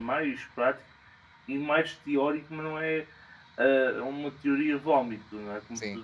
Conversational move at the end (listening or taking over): listening